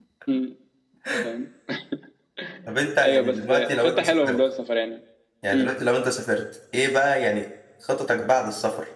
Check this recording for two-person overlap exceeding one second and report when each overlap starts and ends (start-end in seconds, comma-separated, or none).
3.0-4.4